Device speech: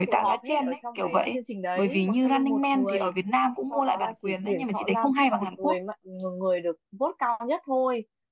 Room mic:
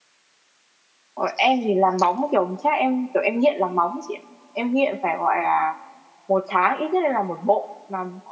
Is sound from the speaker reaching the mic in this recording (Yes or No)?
No